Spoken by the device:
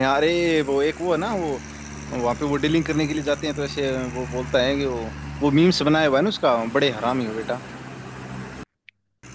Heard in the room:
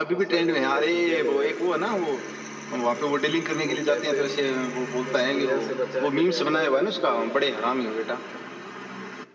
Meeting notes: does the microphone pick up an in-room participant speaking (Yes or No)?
Yes